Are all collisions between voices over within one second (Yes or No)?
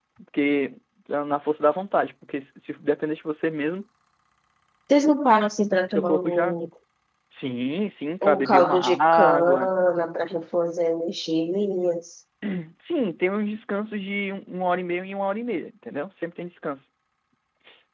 No